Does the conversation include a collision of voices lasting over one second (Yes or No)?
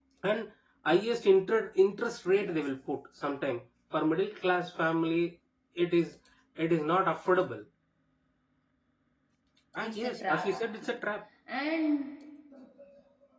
Yes